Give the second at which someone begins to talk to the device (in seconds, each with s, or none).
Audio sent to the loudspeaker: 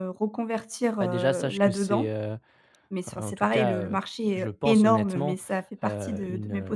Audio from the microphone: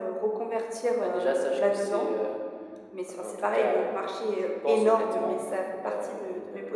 none